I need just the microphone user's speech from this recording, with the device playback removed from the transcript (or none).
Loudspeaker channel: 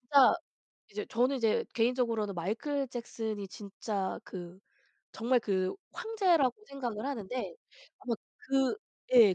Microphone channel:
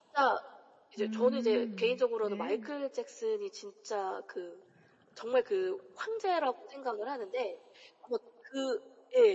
음 네.